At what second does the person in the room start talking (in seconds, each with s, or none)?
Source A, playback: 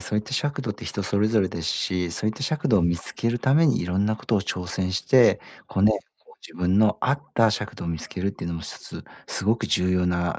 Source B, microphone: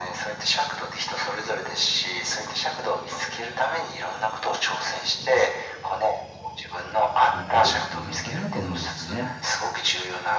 7.3 s